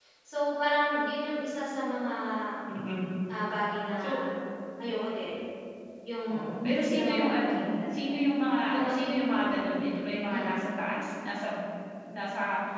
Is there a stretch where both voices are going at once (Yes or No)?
Yes